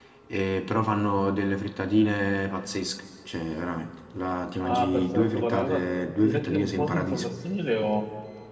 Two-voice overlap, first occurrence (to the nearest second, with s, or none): 5 s